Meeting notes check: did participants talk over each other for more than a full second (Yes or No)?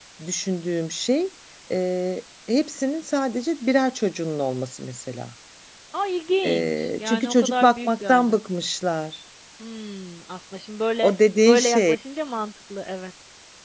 Yes